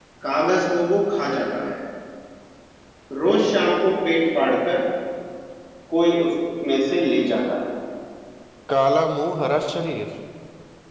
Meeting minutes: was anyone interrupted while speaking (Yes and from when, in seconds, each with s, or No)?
No